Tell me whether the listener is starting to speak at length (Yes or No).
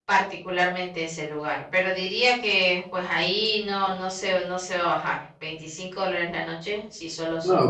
Yes